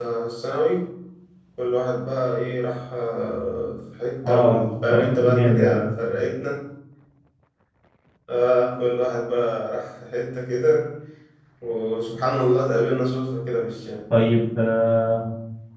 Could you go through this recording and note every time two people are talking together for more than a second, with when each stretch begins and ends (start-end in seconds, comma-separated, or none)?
4.2-5.8